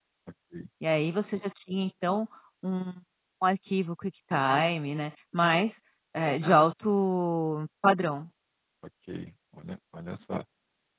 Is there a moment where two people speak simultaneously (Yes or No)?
No